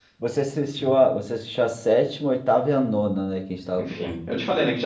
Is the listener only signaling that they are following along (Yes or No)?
No